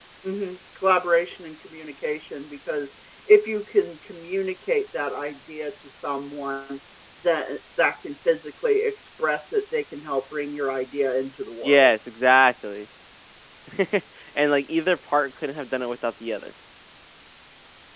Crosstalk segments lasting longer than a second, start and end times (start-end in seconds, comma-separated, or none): none